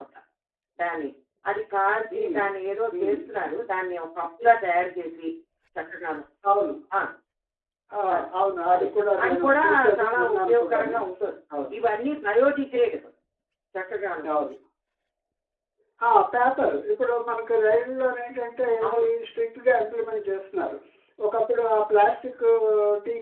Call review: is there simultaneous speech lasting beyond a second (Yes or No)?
Yes